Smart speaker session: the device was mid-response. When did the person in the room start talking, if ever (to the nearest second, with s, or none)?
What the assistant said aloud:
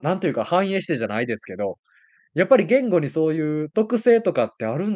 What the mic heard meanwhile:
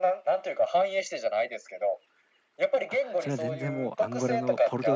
3 s